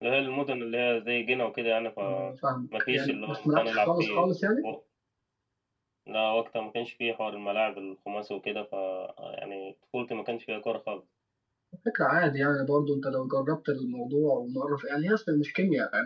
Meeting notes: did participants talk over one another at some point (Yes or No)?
Yes